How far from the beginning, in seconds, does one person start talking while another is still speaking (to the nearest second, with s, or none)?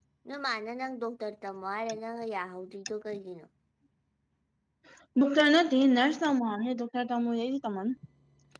none